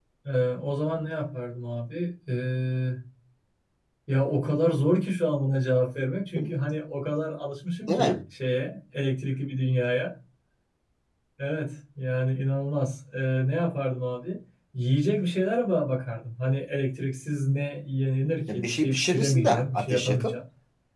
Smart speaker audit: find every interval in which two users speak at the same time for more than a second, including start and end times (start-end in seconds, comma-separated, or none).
18.5-20.3